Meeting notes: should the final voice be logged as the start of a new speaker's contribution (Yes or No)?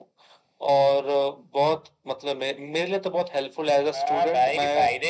Yes